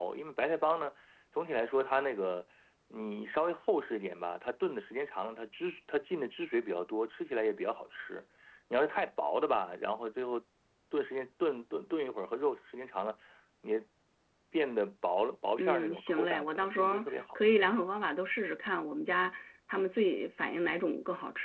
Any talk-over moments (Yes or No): Yes